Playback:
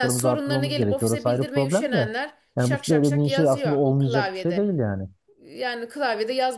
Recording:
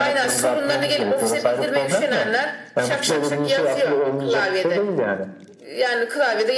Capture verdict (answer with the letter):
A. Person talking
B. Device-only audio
B